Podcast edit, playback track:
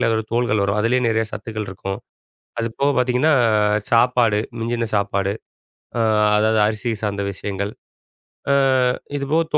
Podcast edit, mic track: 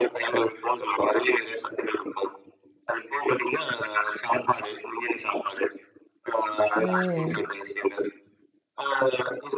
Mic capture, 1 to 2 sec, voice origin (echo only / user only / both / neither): echo only